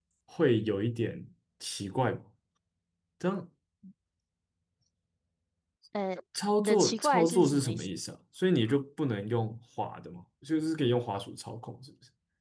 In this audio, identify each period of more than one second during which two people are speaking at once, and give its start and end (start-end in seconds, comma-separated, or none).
6.6-7.9